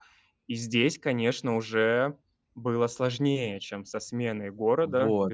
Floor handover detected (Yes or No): Yes